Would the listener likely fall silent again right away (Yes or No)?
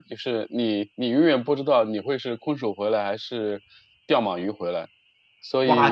No